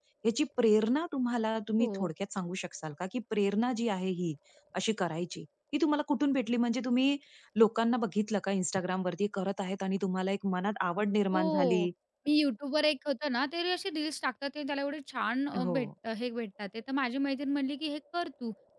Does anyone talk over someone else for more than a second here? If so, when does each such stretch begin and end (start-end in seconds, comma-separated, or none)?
none